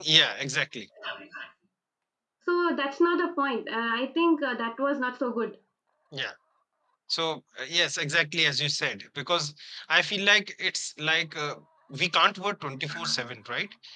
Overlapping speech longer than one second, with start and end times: none

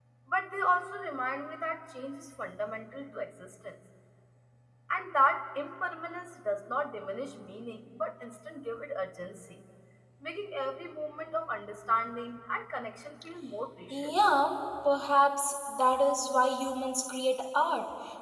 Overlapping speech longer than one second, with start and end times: none

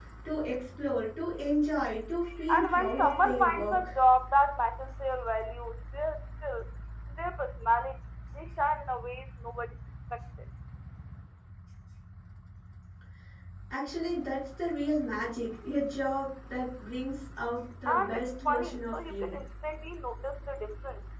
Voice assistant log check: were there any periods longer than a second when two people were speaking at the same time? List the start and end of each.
2.5-3.9, 17.9-19.4

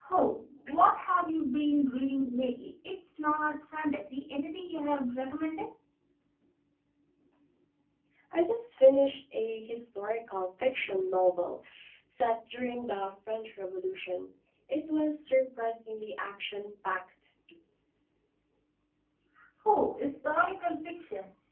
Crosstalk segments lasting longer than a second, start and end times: none

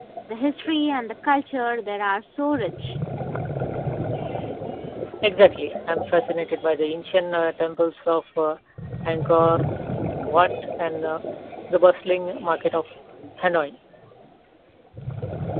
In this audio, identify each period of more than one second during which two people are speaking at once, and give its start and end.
none

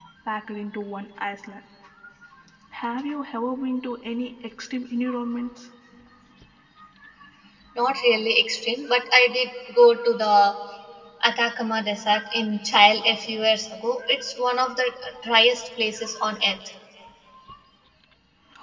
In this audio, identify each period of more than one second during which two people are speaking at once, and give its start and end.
none

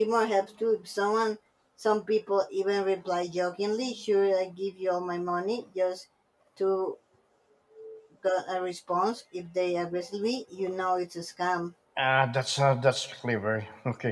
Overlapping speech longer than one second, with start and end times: none

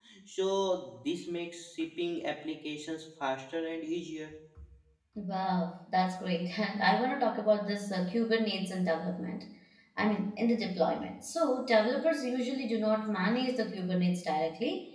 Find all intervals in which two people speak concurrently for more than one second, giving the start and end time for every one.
none

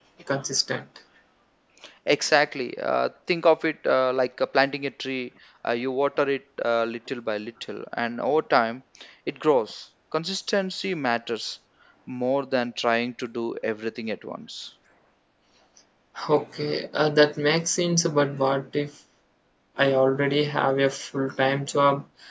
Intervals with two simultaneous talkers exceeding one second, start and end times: none

